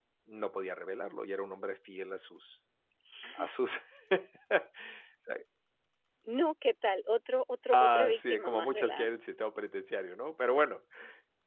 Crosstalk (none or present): present